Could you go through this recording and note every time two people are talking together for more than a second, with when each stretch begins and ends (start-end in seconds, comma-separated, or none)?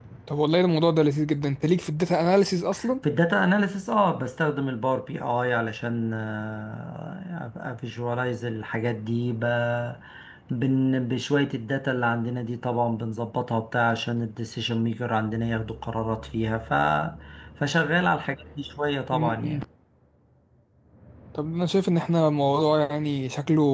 none